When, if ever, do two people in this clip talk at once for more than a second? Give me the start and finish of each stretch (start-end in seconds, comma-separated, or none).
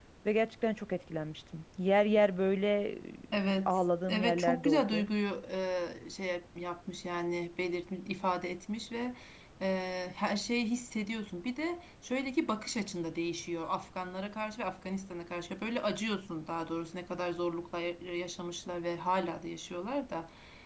3.7-5.0